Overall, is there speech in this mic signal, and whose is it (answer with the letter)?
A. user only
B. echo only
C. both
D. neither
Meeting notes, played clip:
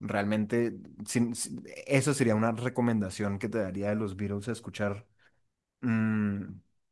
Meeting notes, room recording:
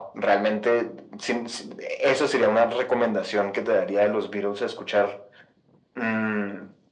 B